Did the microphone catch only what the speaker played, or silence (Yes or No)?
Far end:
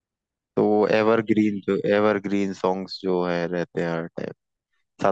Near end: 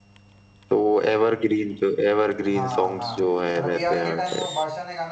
No